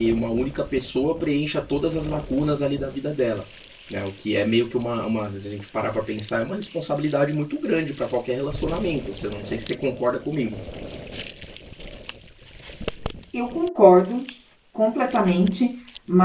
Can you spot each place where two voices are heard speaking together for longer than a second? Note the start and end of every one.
none

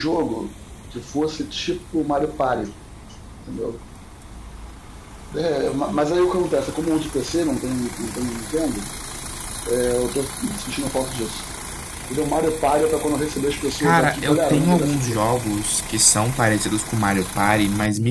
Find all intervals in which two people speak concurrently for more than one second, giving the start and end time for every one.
13.8-15.2

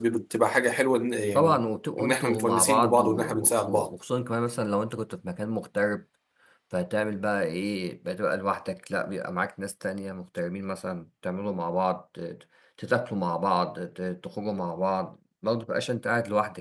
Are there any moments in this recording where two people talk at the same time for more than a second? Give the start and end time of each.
2.0-3.9

